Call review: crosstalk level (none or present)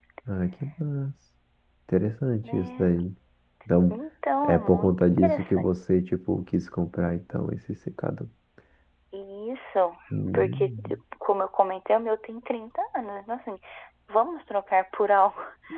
present